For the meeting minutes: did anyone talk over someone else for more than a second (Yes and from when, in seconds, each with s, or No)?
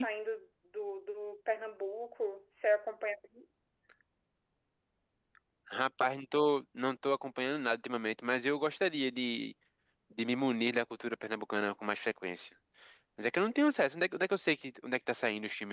No